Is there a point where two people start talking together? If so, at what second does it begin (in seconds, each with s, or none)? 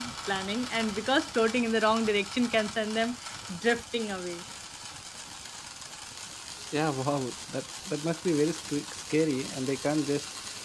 none